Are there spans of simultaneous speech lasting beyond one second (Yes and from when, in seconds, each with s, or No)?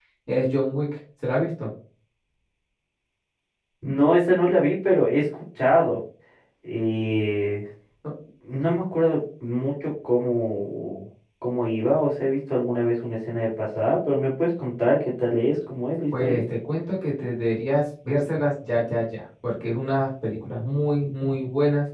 No